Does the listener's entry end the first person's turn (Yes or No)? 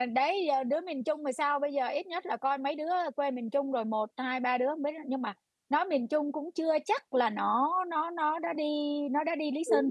Yes